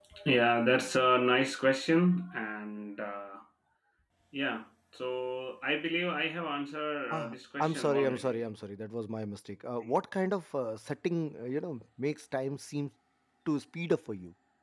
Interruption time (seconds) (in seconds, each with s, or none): 7.1 s